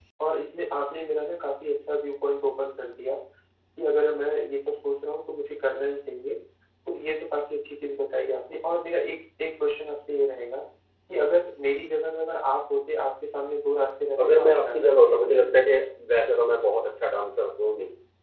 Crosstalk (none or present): present